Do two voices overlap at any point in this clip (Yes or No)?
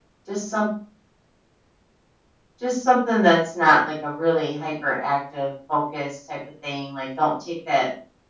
No